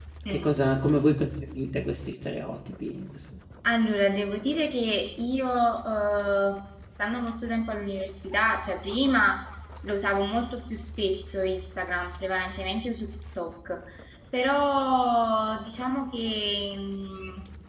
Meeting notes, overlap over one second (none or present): none